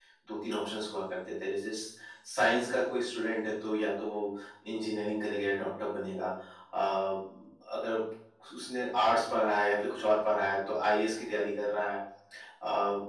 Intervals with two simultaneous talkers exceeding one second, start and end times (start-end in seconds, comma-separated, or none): none